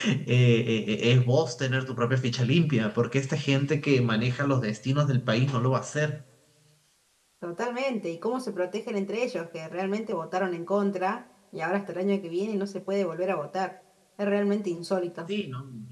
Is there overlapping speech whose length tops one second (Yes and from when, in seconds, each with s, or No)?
No